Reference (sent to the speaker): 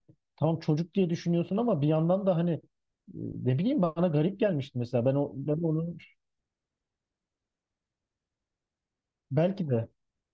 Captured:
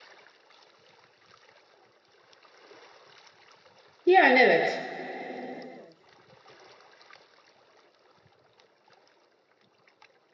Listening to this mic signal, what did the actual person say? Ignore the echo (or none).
Yani evet.